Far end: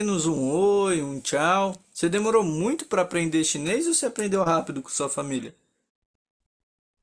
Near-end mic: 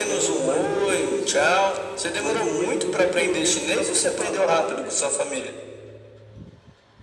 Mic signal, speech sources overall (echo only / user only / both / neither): both